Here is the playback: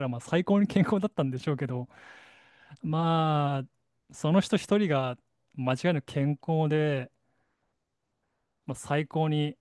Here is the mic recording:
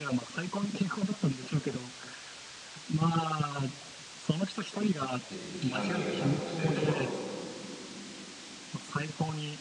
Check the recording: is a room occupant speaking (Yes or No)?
Yes